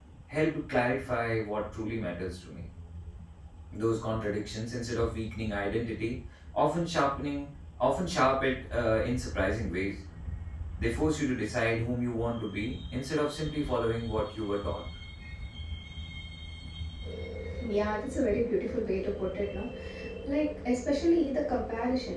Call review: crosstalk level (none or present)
none